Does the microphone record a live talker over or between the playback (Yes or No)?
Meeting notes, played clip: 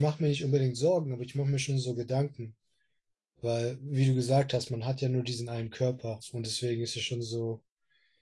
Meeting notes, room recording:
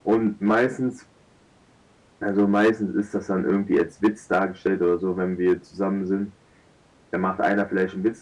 Yes